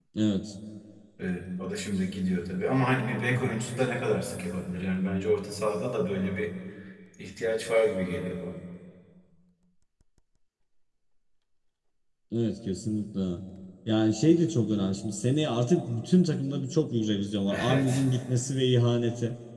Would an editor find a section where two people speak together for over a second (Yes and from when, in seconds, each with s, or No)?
No